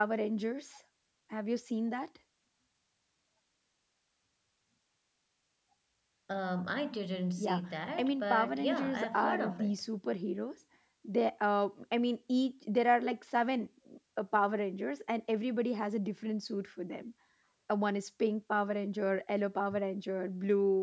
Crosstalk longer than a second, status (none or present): present